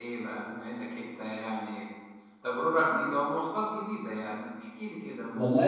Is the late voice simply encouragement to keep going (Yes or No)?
No